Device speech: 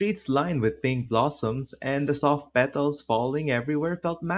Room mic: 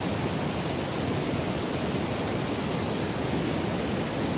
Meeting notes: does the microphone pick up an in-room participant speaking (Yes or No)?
No